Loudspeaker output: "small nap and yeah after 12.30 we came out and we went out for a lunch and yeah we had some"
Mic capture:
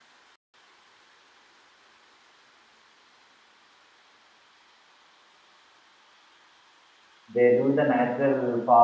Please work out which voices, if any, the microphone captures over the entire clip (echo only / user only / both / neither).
user only